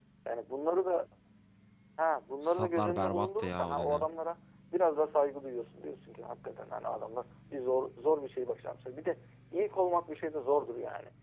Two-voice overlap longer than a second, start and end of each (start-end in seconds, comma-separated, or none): 2.4-4.1